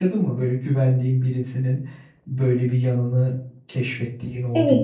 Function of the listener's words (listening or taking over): taking over